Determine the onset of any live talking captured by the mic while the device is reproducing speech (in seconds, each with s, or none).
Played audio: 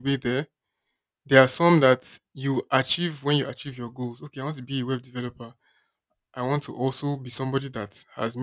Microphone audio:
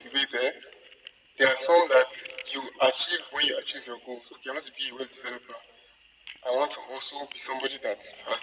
none